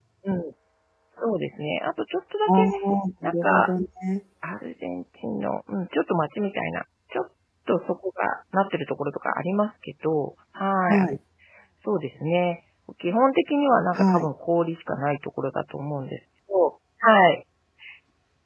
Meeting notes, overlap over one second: none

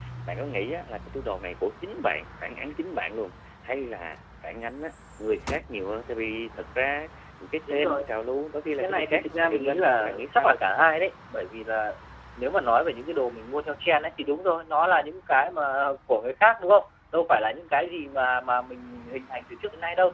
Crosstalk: present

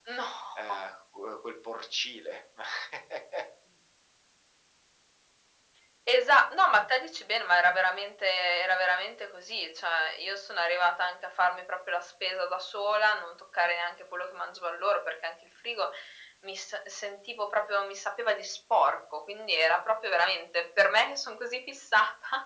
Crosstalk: none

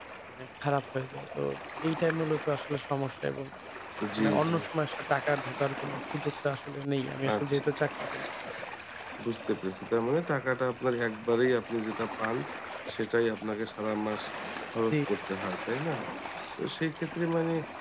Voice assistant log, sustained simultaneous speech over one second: none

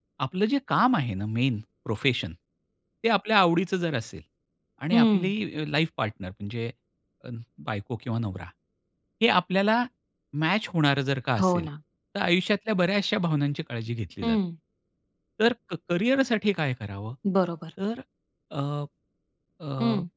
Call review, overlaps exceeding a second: none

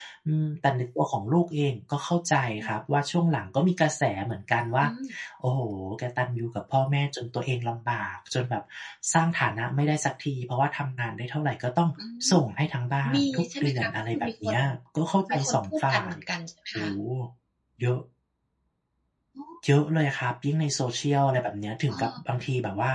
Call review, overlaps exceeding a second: present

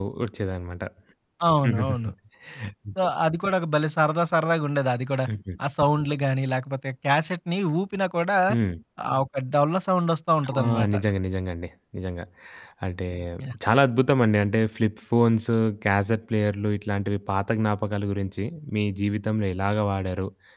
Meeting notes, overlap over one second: none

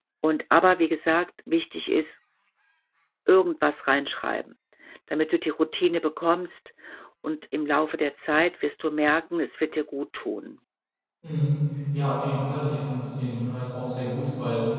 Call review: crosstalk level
none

